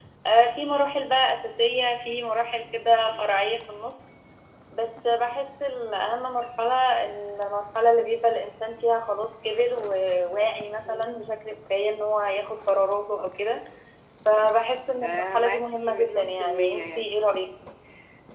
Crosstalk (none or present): present